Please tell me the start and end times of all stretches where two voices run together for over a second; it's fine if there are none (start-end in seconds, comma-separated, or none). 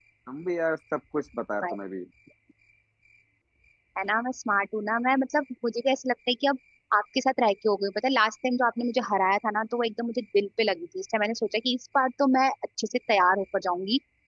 none